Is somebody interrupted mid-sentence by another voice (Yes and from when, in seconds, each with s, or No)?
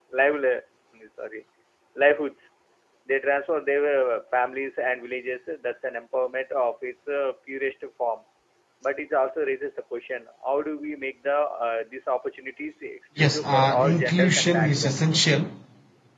Yes, from 13.2 s